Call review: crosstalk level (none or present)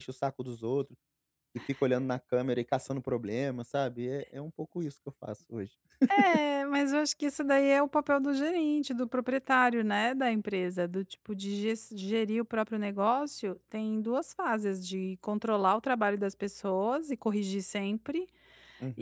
none